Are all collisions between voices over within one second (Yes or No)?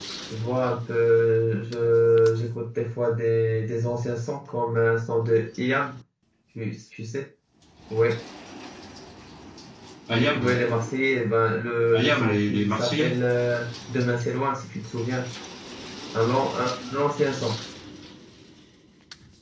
No